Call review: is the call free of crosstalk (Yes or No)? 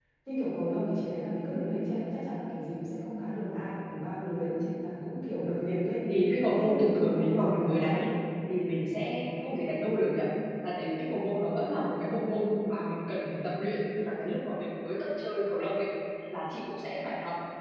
No